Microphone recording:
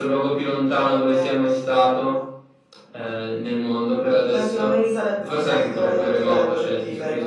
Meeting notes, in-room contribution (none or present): present